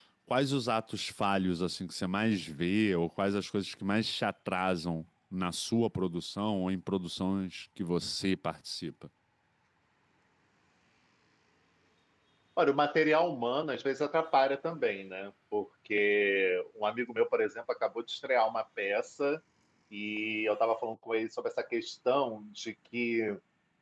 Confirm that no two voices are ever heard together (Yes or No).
Yes